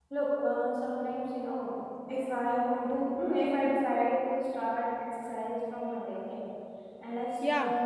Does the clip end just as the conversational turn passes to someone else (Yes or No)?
No